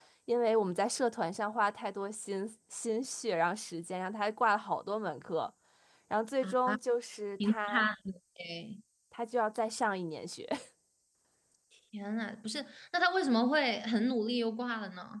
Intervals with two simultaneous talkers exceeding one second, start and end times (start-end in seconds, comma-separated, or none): none